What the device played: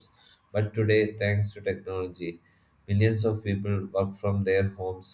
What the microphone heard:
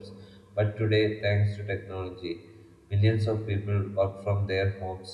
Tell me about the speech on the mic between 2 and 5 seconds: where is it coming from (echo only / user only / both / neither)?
echo only